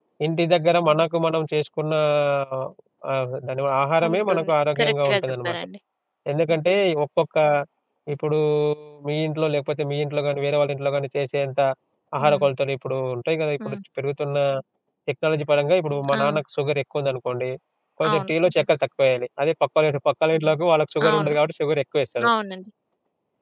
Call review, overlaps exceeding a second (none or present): present